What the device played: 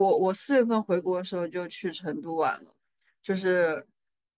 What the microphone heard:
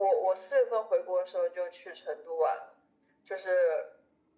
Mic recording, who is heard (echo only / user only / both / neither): echo only